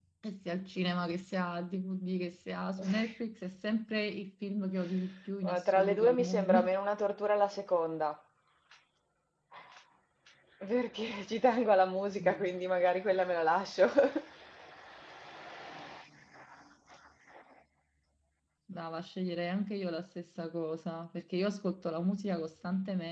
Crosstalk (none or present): present